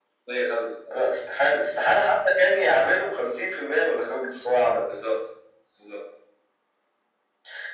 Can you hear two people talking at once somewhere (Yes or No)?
No